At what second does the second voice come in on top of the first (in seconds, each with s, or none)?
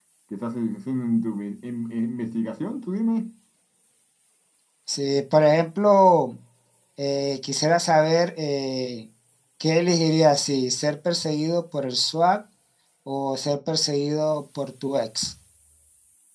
none